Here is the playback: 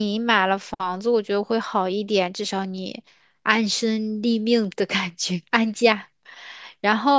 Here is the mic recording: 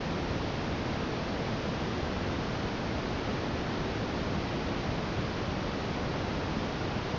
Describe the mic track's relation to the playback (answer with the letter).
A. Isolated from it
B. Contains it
A